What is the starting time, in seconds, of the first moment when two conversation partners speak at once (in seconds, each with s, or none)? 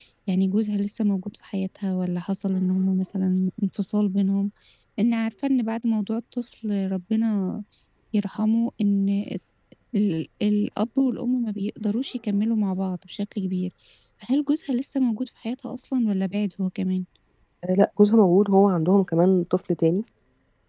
none